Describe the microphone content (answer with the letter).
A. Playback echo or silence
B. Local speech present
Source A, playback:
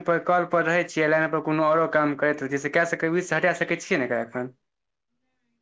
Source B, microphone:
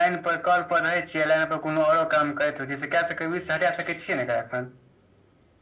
A